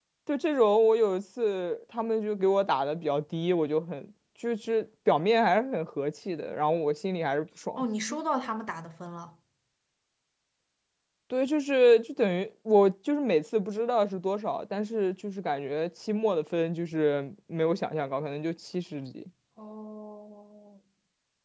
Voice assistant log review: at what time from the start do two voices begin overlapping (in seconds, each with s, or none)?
none